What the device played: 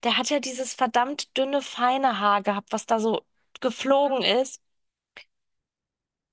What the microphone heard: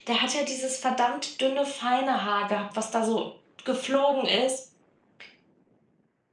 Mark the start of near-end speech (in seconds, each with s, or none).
none